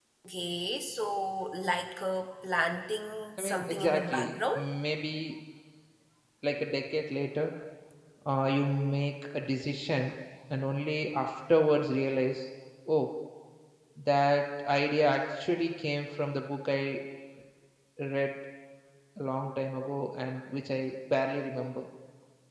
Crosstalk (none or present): present